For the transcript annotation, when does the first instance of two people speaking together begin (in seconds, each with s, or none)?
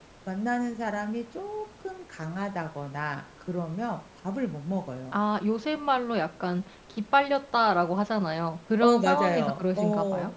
8.8 s